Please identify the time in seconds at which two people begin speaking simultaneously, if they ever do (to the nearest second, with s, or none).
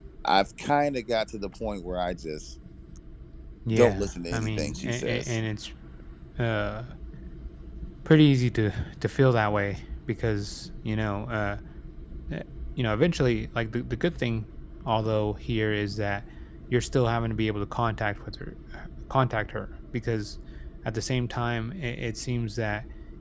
4 s